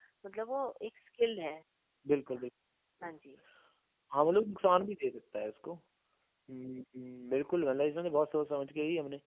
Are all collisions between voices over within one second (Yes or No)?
Yes